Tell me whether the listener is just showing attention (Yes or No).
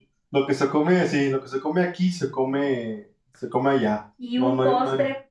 No